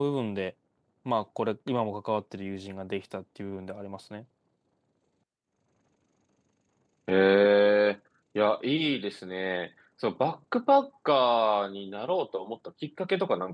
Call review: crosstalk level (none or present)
none